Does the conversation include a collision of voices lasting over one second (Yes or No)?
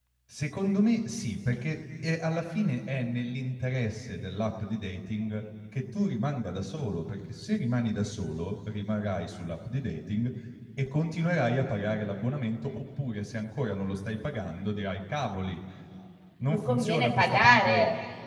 Yes